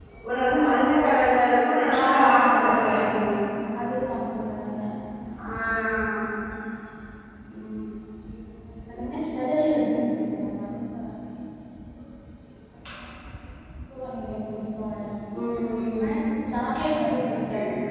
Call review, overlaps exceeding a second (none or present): present